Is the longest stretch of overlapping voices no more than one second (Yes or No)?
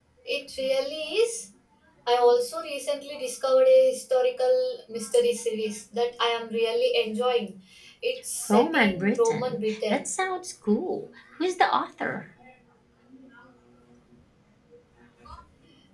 No